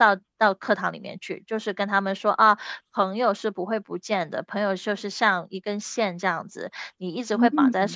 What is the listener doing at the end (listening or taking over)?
listening